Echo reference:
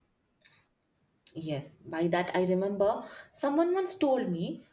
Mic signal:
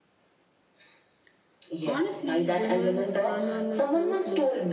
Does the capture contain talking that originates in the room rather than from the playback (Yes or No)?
Yes